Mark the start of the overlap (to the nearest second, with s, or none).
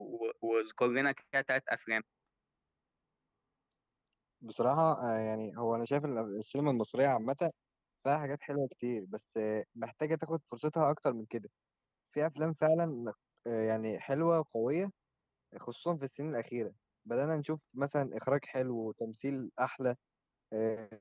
none